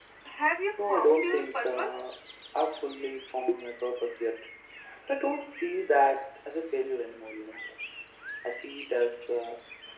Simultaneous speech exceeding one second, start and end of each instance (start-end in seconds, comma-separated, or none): 0.7-2.0